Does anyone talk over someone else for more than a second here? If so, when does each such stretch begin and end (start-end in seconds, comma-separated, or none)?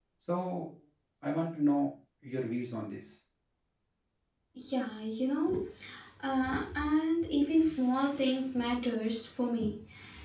none